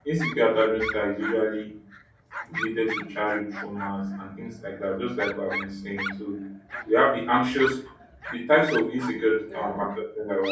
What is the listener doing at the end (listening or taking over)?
listening